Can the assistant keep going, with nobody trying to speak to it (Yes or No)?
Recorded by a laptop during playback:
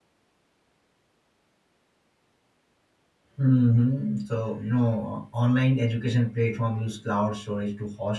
No